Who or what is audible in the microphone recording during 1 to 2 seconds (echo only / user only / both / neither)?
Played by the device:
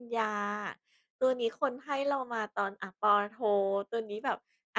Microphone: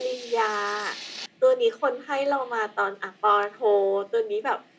echo only